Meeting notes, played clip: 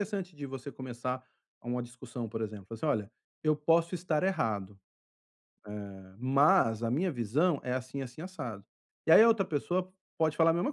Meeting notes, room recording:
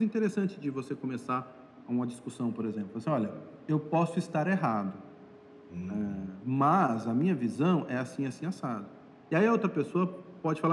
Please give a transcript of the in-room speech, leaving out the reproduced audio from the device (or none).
Uhum.